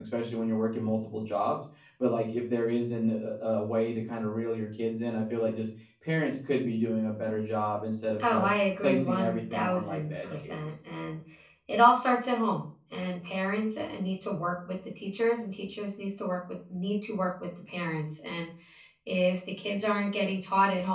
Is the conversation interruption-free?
No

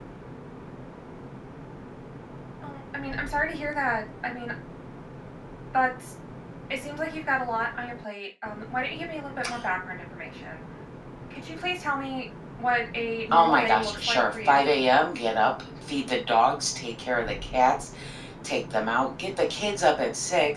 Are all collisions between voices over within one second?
No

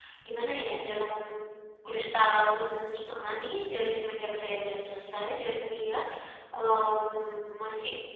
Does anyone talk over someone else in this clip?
No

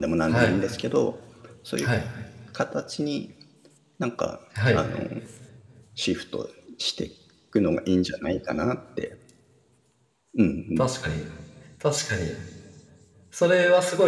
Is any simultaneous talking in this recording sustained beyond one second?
No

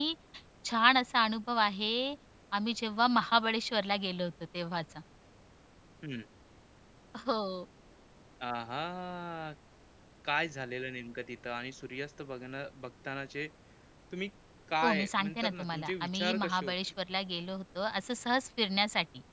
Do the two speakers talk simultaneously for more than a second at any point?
Yes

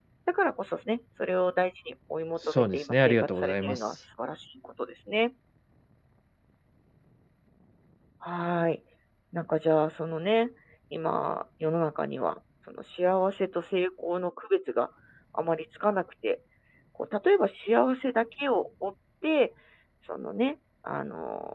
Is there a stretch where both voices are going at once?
Yes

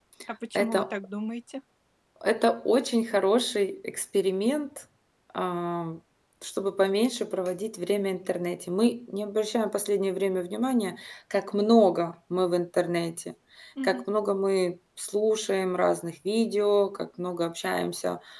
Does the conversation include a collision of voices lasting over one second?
No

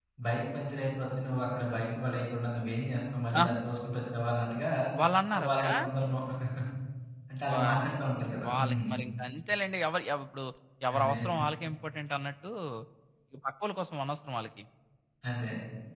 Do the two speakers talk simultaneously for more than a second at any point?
No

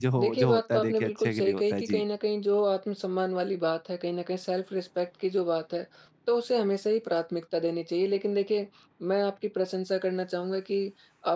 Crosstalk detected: Yes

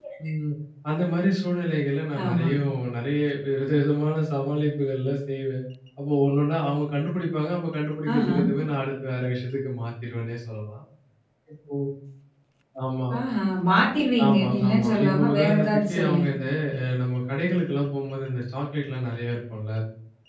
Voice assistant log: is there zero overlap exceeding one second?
No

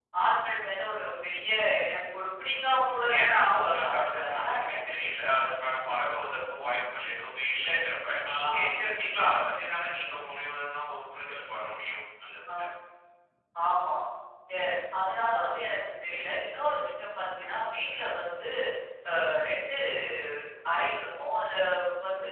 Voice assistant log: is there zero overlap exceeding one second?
No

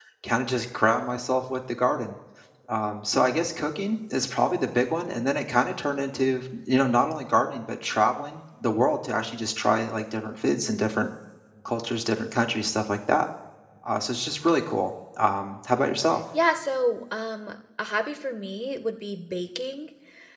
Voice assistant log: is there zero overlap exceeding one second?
Yes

